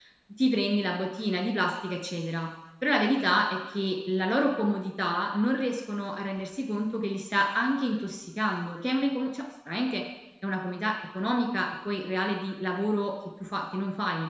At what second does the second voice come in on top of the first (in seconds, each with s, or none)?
none